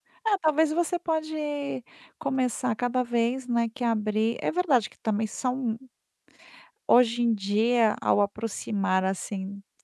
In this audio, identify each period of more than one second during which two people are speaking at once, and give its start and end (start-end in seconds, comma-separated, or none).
none